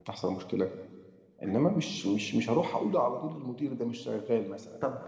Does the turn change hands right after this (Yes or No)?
Yes